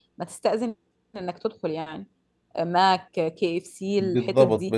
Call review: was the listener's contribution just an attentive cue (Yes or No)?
No